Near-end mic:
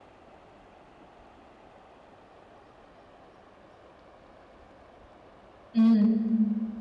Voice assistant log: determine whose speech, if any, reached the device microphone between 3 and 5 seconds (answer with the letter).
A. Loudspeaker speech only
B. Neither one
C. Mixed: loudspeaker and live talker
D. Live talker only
B